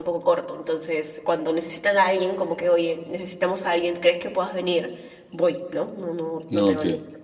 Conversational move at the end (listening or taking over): listening